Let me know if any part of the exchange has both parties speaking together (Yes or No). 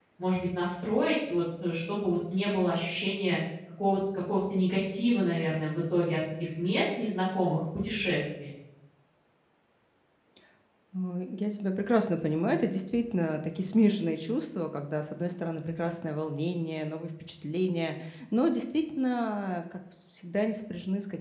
No